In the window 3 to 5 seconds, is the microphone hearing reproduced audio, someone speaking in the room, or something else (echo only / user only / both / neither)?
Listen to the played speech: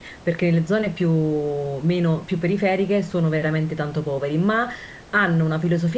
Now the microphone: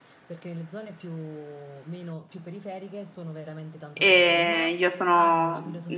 both